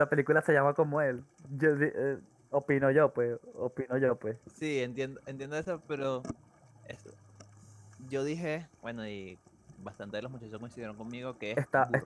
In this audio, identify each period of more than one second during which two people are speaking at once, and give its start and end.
none

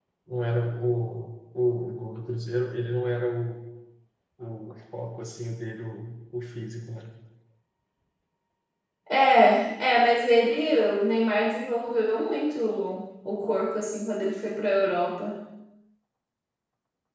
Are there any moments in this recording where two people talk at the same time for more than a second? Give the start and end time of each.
none

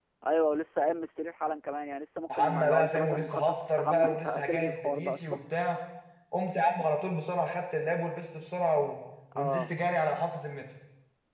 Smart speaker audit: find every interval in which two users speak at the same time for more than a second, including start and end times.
2.3-5.4

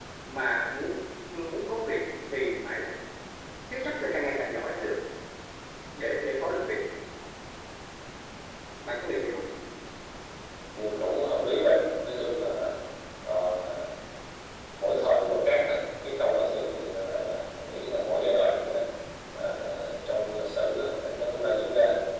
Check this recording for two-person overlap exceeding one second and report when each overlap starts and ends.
none

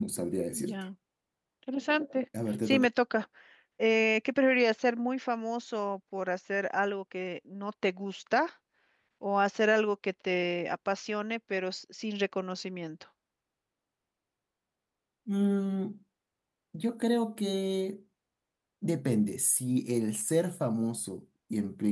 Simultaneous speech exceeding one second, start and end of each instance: none

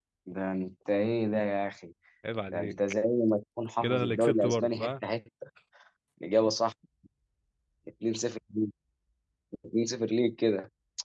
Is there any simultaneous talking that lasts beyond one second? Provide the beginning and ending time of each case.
3.8-5.1

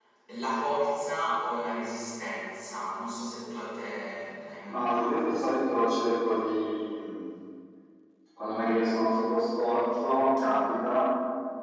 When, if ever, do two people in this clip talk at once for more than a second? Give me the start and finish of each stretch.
4.7-6.2

